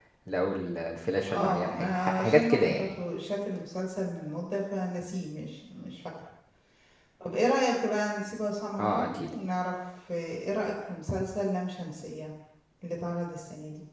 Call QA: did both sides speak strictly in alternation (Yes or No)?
No